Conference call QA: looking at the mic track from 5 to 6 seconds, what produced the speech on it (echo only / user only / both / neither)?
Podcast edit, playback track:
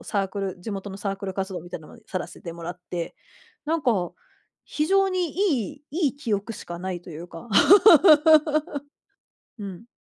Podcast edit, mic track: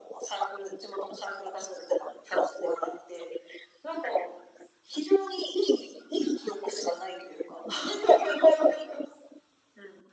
echo only